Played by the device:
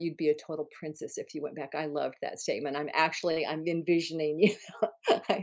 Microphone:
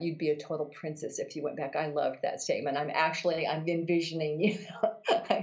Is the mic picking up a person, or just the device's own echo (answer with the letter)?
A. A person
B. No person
B